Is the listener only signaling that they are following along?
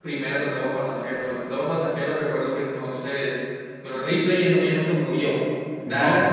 Yes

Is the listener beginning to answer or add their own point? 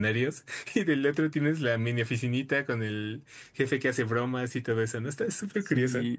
Yes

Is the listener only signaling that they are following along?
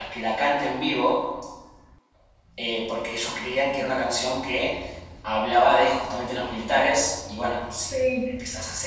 Yes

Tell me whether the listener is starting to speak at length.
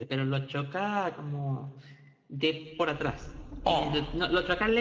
No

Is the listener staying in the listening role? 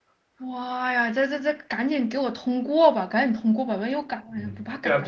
No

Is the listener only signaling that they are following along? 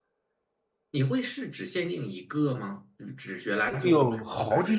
No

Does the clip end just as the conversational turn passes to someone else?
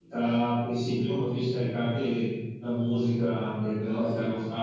No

